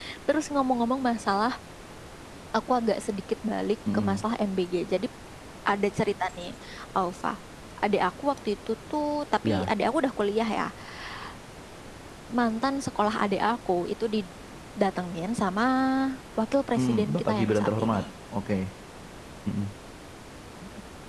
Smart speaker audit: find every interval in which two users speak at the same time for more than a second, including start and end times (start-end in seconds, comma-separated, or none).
16.8-18.0